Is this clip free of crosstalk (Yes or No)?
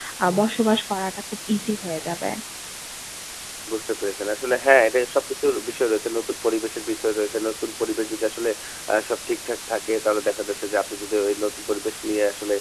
Yes